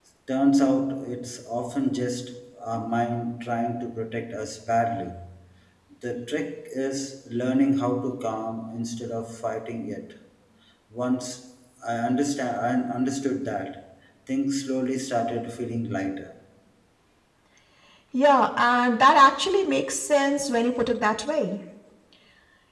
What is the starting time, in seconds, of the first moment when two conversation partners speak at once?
none

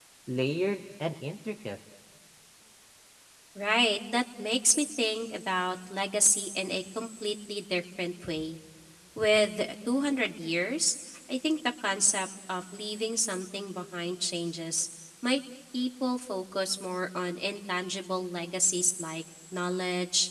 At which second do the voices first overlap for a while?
none

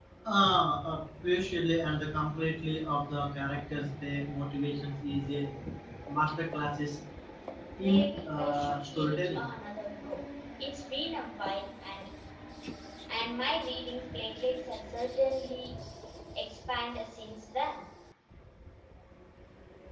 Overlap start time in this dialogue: 7.8 s

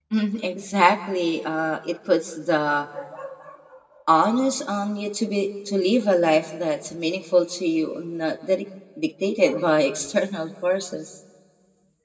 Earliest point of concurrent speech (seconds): none

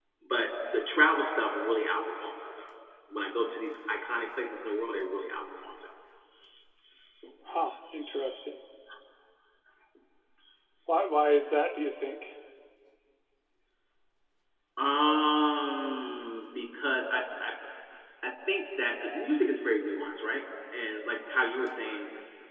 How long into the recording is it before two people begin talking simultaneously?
none

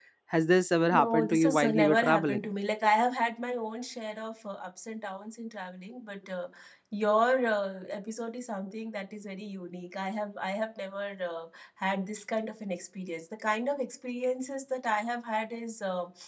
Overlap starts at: 0.9 s

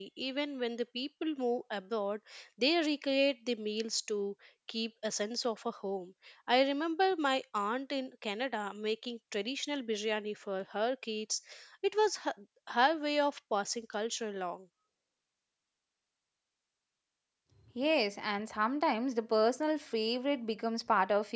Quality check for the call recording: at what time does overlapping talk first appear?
none

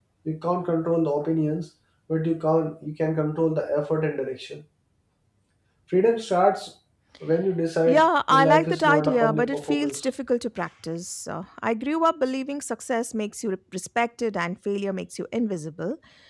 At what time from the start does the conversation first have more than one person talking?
7.9 s

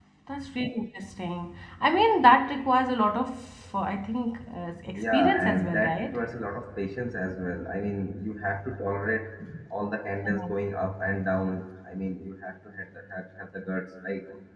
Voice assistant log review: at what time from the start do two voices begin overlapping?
5.0 s

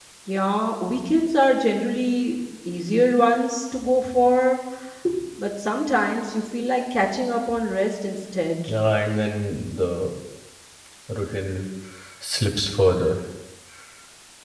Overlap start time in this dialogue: none

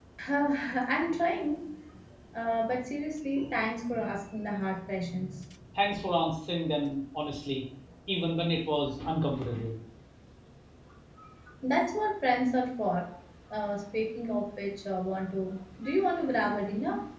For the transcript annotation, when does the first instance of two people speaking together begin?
none

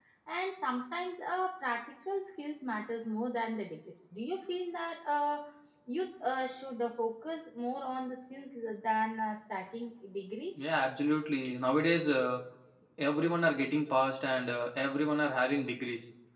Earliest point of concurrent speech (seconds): none

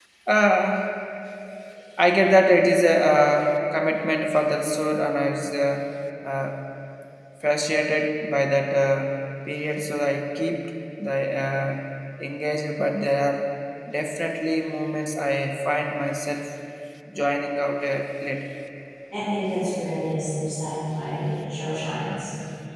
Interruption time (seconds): none

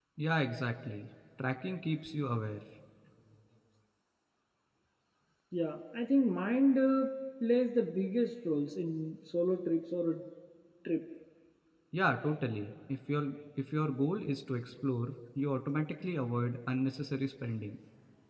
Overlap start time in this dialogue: none

